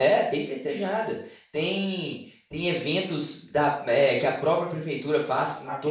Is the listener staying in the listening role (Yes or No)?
Yes